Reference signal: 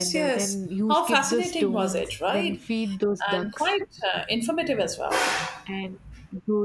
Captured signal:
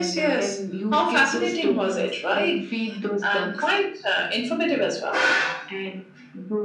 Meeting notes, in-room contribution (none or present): none